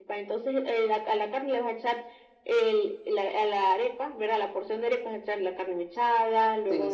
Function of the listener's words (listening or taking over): listening